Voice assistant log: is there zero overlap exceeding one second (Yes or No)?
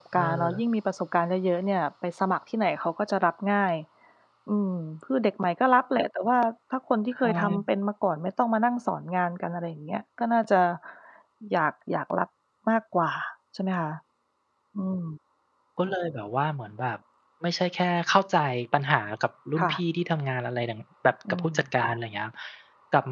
Yes